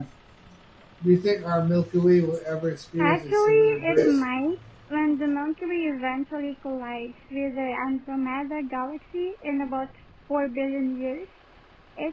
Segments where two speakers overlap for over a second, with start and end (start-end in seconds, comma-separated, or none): 3.0-4.2